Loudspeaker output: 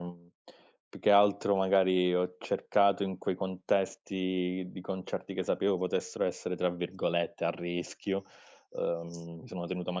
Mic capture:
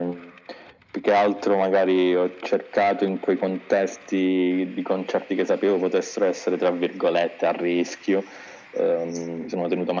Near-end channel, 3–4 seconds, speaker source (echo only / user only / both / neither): echo only